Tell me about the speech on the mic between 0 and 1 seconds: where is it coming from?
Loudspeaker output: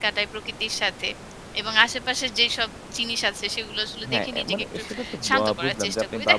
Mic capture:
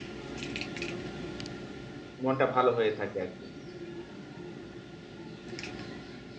neither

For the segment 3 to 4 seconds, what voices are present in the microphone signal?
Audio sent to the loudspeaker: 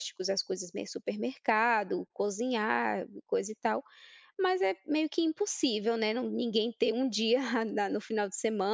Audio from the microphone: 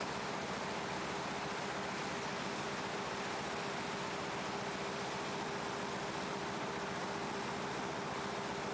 neither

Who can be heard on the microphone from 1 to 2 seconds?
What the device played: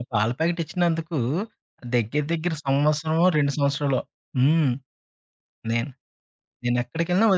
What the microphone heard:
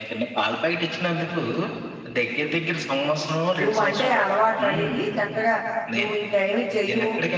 echo only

